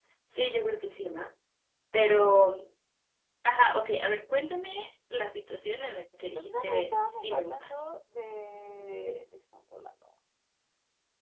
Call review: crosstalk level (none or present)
present